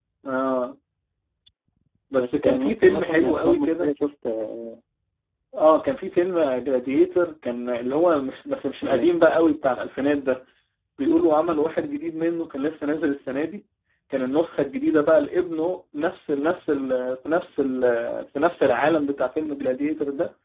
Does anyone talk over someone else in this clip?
Yes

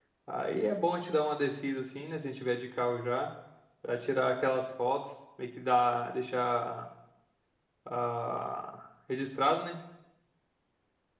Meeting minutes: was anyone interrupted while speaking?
No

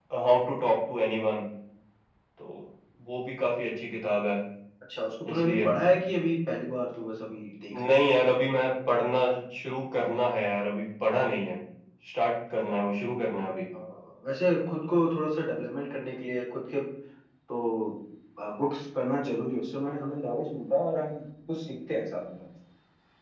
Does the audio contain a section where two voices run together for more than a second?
No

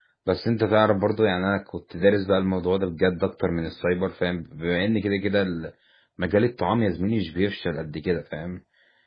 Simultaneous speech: No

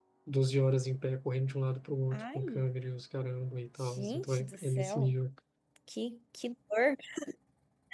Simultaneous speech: Yes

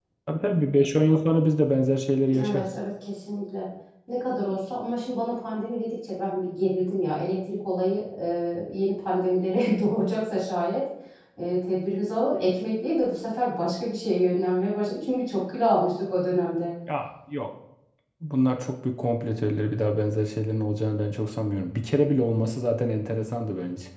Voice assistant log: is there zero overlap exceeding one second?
Yes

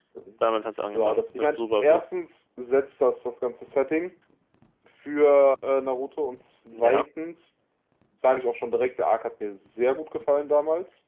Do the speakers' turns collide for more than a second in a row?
Yes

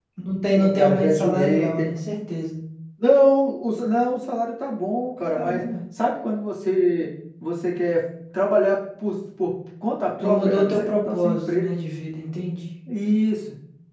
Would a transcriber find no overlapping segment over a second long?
No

